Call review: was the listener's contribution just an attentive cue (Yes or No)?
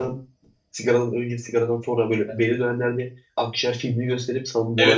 No